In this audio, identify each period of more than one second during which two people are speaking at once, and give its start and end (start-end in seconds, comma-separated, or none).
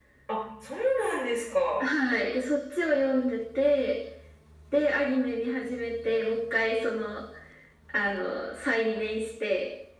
none